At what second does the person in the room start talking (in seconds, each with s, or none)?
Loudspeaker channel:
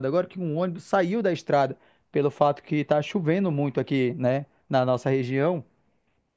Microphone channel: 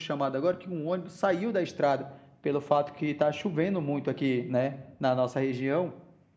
none